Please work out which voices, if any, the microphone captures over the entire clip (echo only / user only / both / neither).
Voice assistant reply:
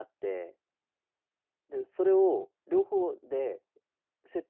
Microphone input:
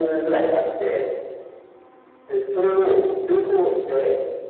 echo only